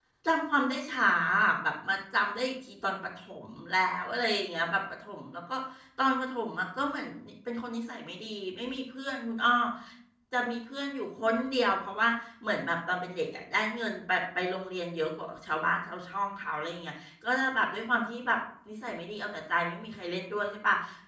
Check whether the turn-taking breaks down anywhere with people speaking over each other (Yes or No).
No